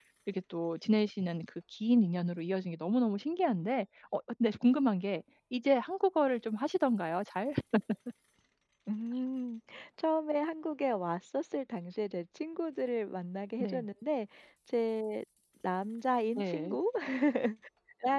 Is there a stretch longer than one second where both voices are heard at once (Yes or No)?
No